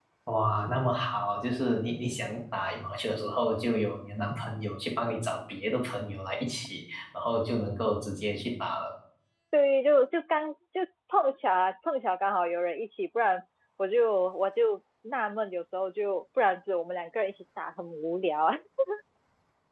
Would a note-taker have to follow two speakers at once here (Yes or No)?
No